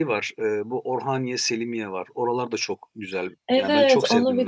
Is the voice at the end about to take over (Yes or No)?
Yes